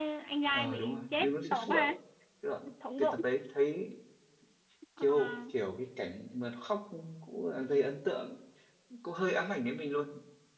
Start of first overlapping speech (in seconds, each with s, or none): 0.5 s